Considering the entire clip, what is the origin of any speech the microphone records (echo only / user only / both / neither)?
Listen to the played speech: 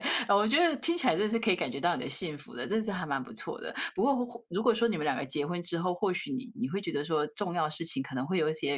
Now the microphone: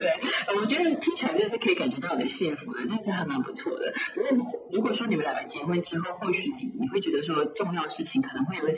echo only